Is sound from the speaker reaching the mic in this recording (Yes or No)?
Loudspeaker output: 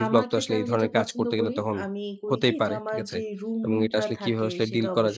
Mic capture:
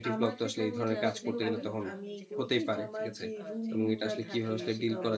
Yes